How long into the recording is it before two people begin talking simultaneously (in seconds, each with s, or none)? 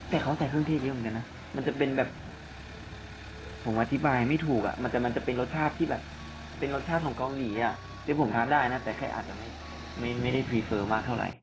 none